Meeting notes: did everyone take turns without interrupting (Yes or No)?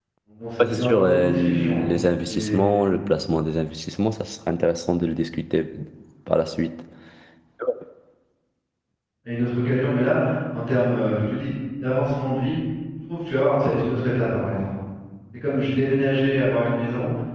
No